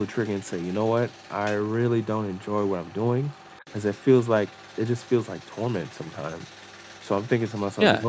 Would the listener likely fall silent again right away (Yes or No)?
No